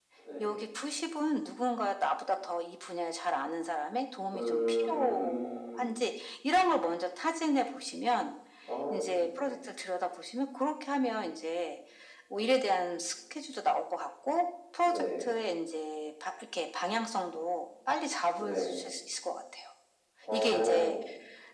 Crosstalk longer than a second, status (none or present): present